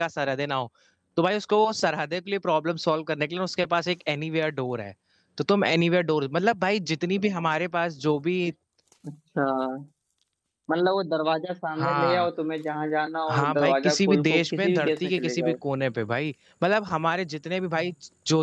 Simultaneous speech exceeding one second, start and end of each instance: 13.3-15.6

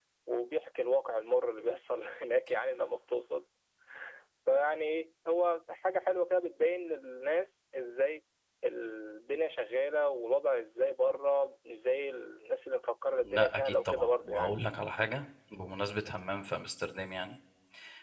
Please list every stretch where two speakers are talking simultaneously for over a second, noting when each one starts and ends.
13.2-14.6

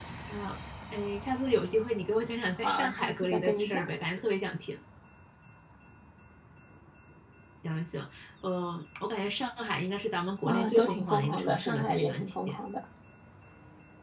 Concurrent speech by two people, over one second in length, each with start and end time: 2.6-3.9, 10.4-12.6

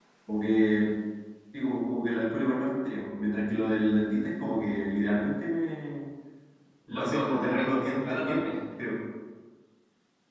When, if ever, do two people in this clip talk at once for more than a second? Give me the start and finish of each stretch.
6.9-8.5

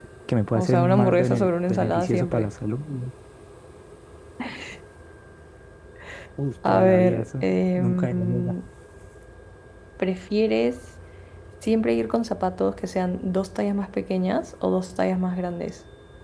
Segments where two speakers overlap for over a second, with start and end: 0.6-2.5, 6.7-8.6

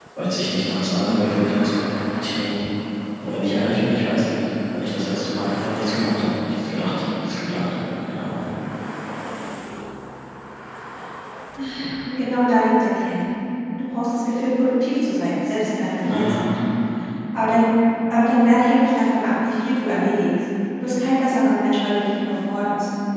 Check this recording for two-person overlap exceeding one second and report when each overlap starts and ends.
none

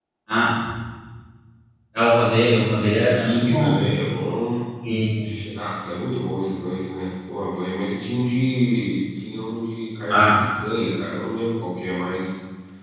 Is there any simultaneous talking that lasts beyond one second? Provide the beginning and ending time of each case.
2.4-3.9

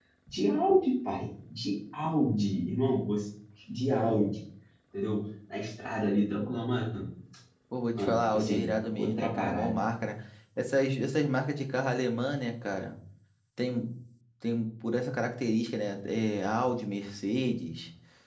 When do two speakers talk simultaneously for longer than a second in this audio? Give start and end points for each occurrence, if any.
8.0-9.8

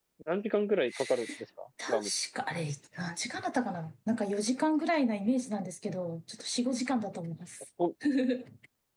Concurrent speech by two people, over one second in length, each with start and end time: none

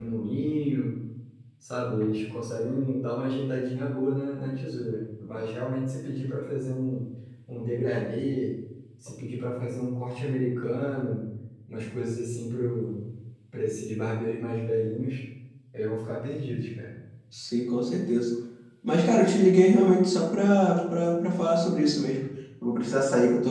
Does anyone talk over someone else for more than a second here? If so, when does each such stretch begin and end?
none

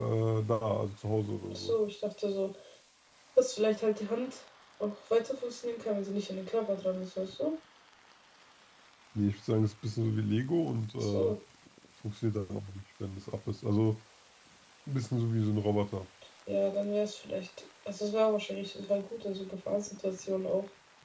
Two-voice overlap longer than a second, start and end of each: none

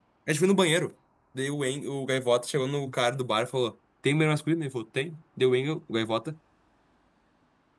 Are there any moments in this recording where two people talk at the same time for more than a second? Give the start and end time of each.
none

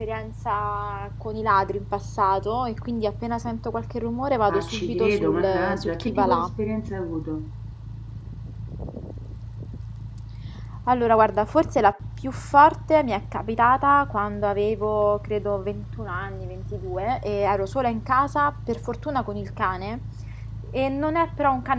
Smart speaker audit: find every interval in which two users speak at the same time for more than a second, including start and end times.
4.5-6.5

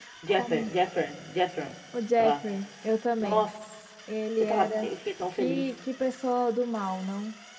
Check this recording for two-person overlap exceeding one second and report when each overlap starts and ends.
none

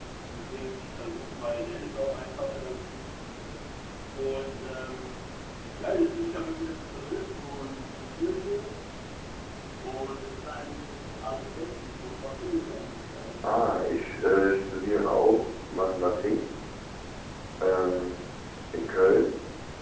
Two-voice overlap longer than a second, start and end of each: none

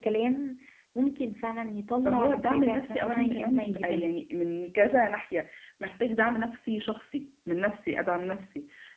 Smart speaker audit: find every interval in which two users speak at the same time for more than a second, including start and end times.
2.0-4.2

